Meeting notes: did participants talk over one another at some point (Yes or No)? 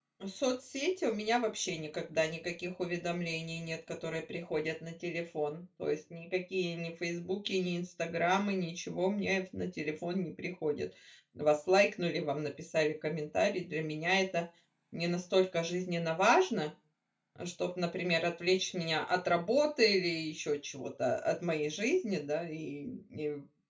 No